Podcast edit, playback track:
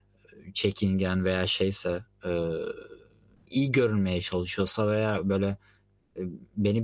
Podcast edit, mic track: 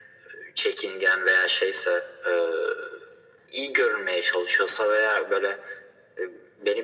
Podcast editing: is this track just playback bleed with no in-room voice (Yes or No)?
Yes